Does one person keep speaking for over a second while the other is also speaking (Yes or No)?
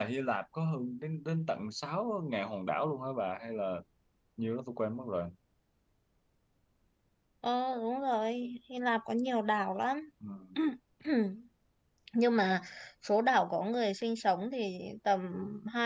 No